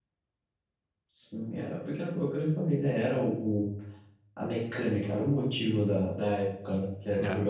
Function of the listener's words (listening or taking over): listening